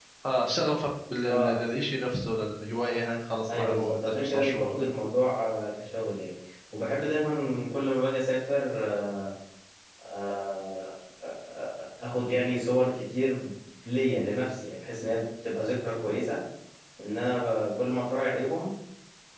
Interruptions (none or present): present